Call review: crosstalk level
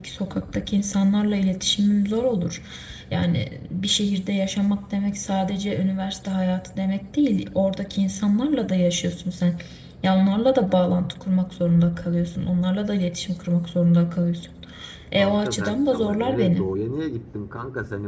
present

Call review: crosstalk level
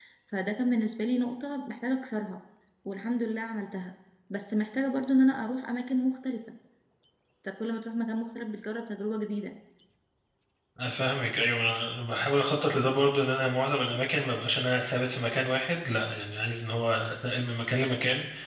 none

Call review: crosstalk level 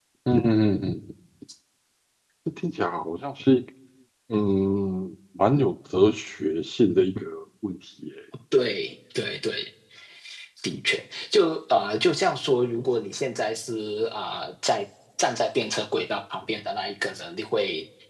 none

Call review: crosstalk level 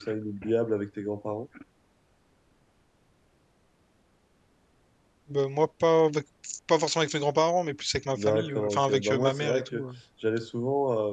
present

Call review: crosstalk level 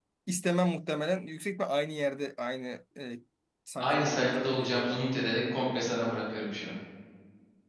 present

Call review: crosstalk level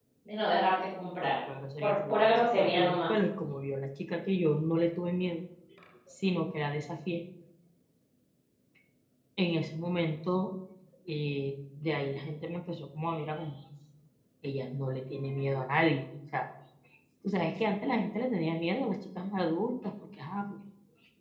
present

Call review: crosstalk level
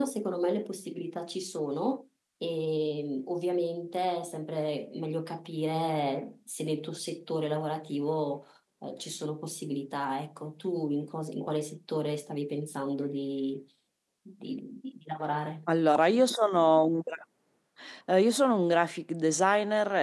none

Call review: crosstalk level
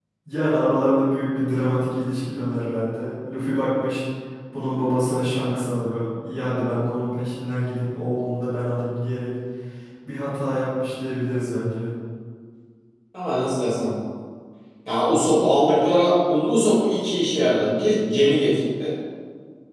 none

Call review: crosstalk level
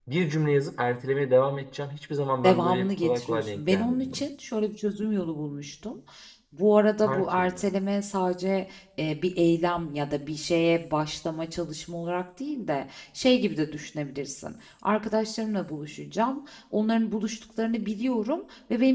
present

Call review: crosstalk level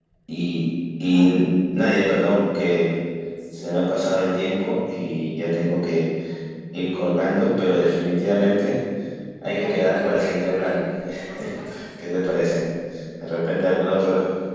present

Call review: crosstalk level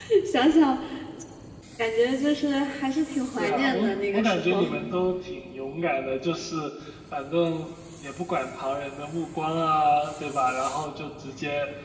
present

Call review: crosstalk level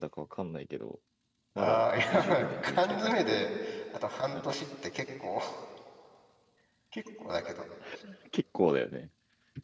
present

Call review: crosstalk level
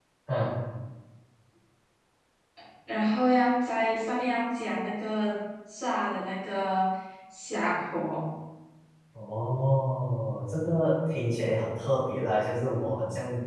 none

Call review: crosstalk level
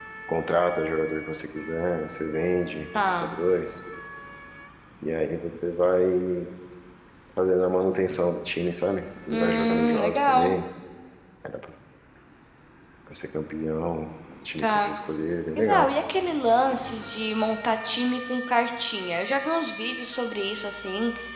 present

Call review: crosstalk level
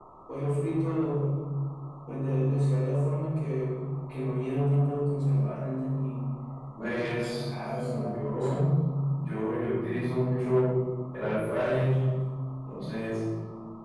present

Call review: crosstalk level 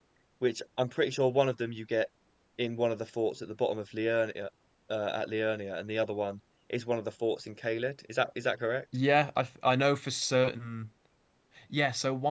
none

